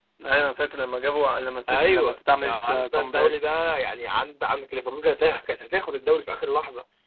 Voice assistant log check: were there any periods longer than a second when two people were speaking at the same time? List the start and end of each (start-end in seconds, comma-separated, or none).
1.7-3.3